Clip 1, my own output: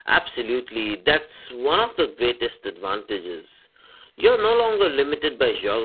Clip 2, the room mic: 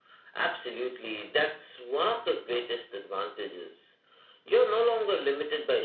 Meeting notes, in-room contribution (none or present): none